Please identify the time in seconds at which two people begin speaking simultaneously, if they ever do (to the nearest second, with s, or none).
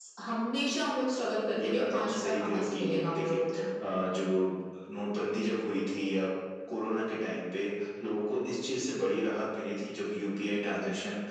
2 s